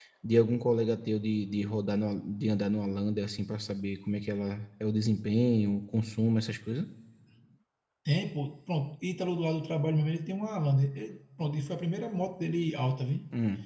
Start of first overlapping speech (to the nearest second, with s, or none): none